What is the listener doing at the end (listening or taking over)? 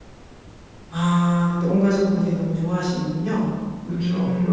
taking over